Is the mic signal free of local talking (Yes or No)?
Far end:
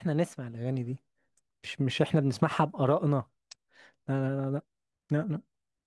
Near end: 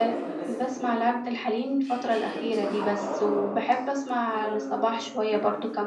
No